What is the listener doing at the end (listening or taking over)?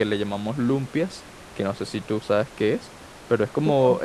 listening